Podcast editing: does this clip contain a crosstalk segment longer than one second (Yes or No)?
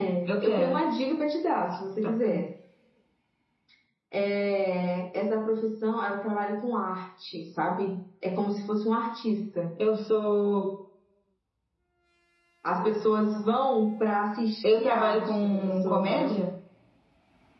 Yes